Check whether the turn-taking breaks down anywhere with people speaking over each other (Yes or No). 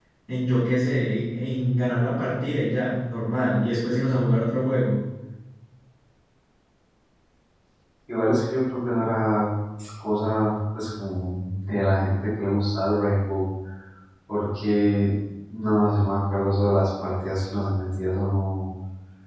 No